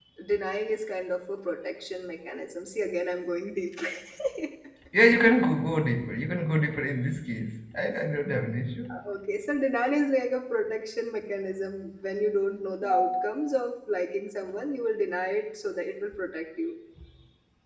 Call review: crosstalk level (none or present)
none